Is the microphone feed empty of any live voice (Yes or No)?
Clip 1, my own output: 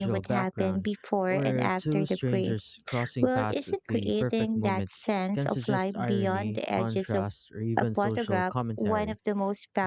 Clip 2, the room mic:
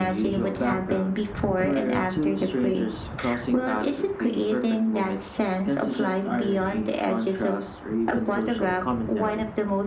Yes